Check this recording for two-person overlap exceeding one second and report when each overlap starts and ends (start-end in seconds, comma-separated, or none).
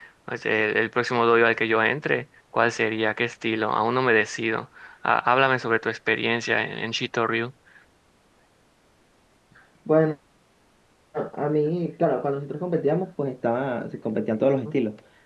none